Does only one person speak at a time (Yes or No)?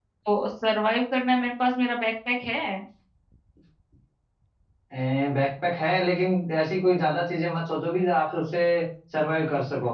Yes